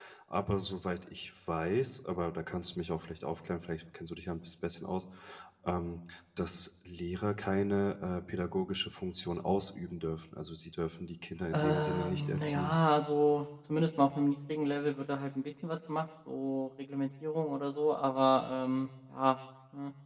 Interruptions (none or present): present